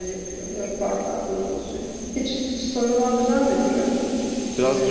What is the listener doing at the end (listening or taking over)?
taking over